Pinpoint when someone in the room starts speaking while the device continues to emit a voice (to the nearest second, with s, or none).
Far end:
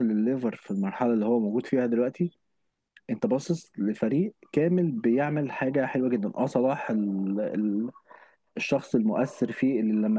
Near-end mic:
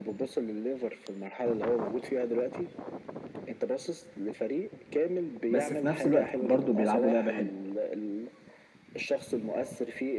6 s